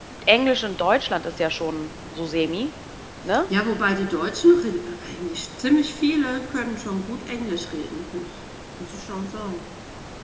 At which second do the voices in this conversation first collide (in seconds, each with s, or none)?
none